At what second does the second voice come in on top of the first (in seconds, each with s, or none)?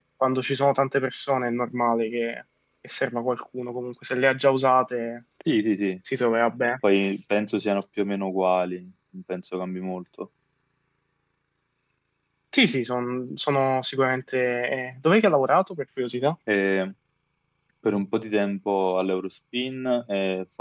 none